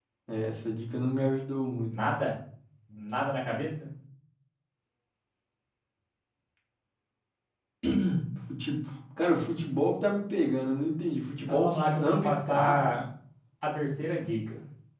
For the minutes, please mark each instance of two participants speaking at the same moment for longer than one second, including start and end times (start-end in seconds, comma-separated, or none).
11.5-13.0